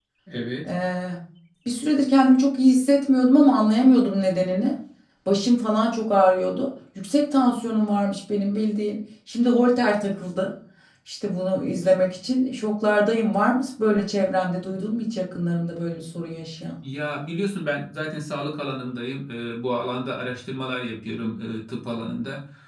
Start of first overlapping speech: none

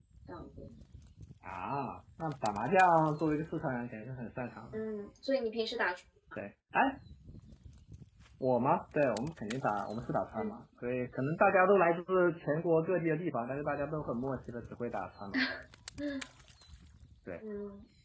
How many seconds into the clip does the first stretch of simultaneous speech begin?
none

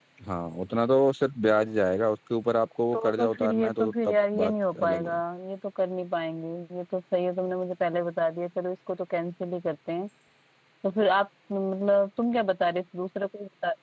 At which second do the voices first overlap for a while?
3 s

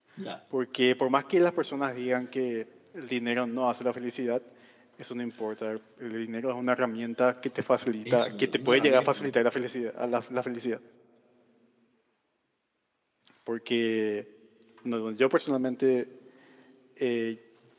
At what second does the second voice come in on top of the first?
8 s

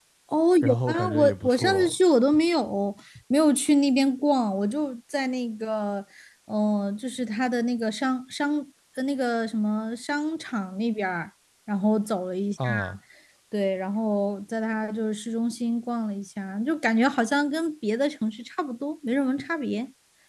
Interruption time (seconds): 1 s

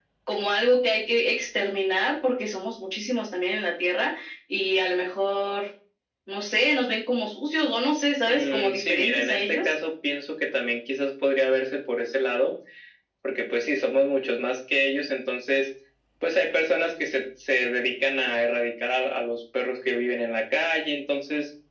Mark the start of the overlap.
8 s

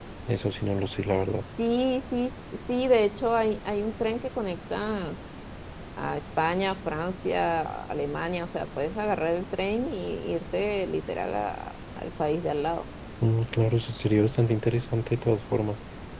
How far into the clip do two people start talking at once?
none

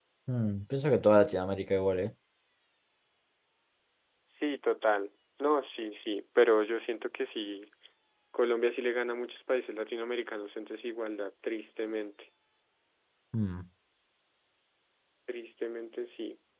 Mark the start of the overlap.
none

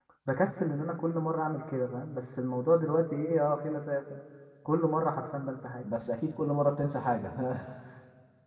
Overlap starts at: none

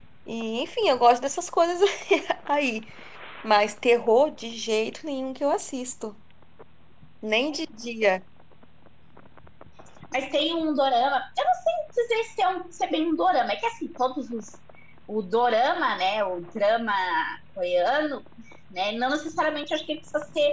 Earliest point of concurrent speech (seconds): none

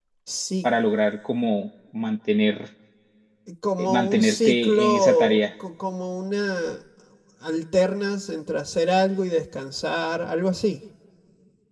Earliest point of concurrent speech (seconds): 4 s

